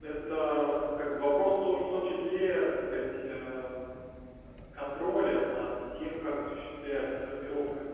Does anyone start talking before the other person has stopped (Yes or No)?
No